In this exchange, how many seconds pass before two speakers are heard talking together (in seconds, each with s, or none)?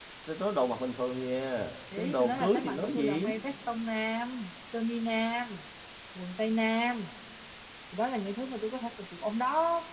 1.9 s